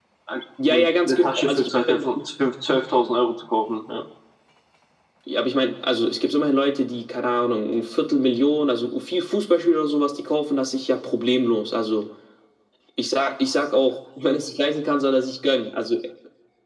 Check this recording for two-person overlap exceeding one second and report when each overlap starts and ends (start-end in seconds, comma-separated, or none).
0.7-2.0